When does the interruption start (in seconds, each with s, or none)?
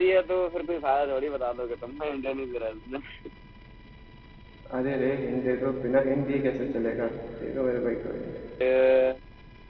none